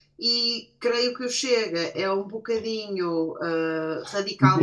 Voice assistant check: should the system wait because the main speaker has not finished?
No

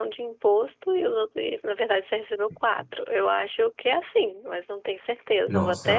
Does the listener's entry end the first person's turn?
Yes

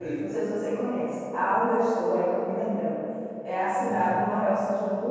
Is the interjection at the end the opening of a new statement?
No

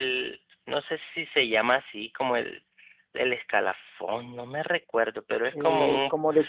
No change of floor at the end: No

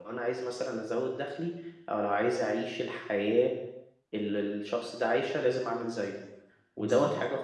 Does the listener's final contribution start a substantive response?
No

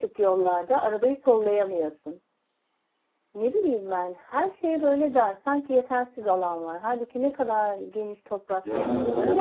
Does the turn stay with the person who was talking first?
No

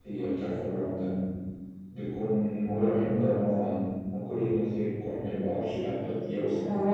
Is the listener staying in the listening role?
No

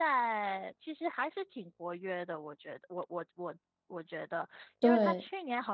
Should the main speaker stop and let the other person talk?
No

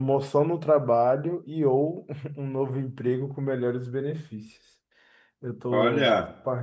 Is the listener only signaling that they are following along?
Yes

